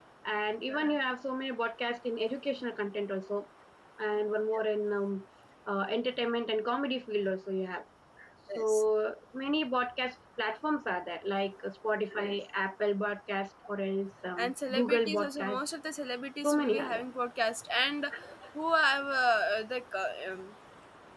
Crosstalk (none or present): present